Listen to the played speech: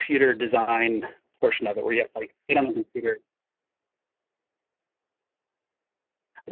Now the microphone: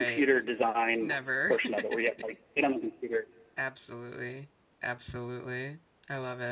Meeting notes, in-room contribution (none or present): present